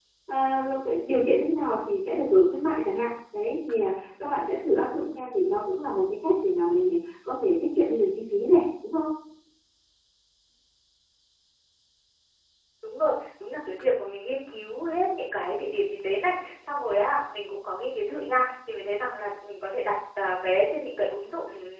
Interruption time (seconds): none

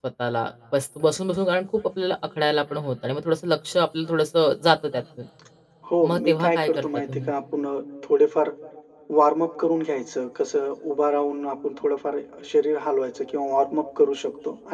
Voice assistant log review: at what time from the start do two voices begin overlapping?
6.1 s

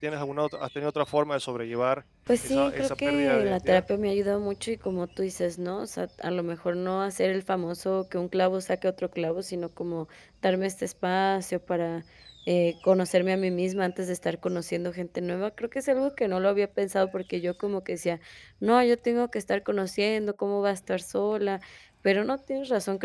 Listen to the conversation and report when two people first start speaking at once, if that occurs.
2.4 s

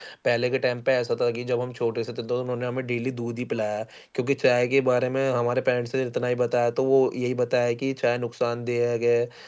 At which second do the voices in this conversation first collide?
none

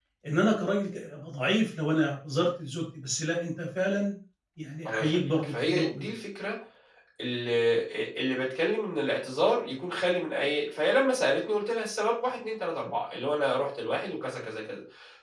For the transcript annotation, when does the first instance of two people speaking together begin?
4.8 s

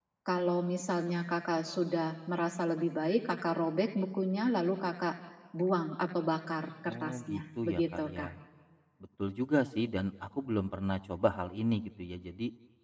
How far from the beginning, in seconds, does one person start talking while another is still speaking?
6.8 s

